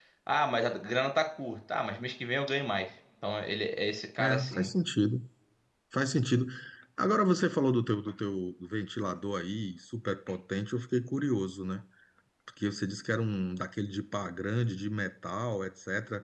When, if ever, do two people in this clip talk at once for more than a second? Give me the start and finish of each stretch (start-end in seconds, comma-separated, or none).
none